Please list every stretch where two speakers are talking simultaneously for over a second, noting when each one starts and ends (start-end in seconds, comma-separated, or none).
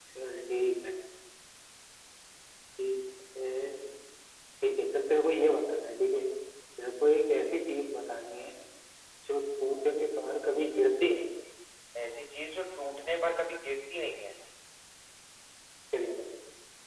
none